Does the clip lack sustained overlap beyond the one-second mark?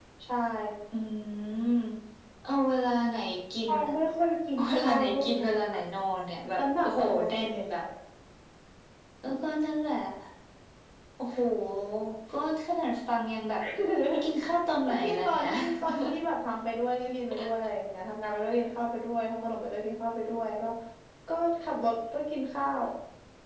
No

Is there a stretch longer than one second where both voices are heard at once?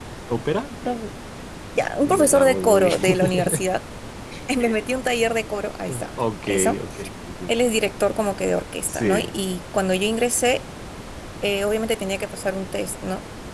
Yes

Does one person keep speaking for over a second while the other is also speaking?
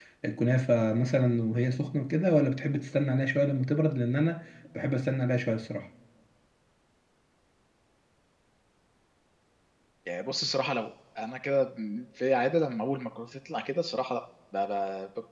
No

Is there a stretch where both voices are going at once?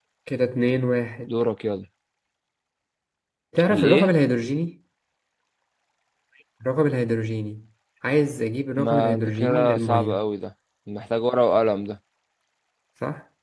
Yes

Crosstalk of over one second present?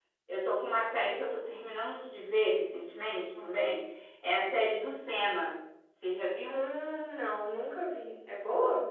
No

